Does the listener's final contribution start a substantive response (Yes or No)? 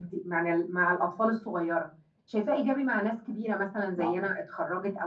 No